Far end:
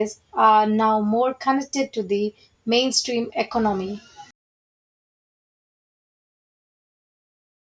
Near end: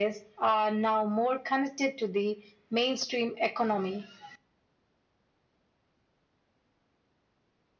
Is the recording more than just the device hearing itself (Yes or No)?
No